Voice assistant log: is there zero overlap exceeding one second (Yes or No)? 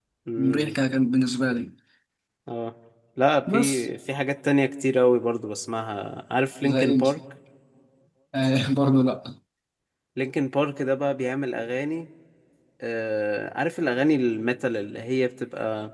Yes